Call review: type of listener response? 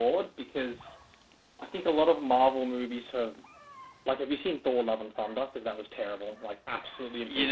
taking over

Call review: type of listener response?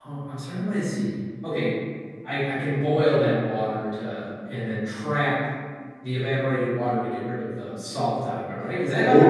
taking over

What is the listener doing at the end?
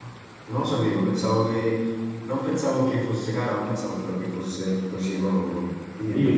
taking over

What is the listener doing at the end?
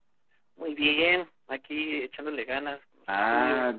taking over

